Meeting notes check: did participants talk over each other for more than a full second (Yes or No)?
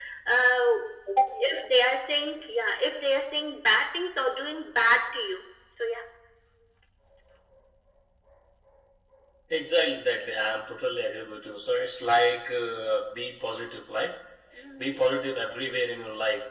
No